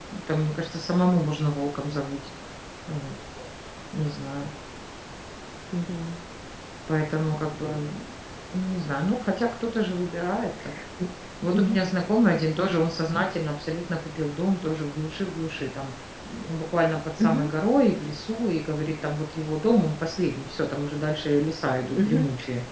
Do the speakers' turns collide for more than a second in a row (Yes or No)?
No